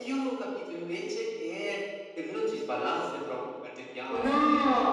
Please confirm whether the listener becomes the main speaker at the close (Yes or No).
Yes